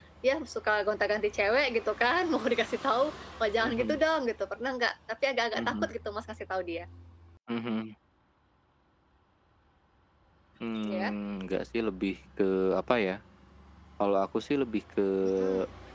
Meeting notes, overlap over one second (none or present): none